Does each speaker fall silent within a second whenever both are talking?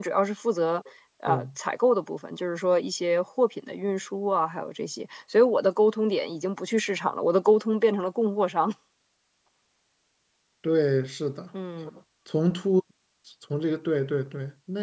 Yes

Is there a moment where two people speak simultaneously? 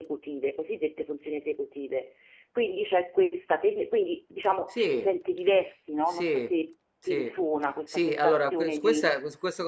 Yes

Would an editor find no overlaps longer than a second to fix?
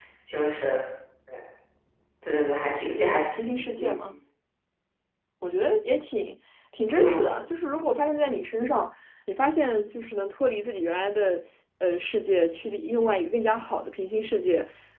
Yes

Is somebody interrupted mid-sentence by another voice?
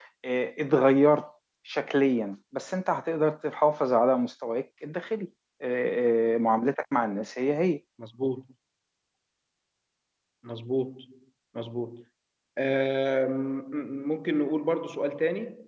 No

